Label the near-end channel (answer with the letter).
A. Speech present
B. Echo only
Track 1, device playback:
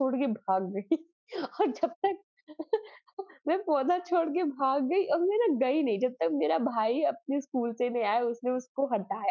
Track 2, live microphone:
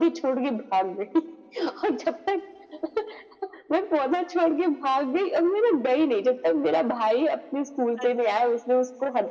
A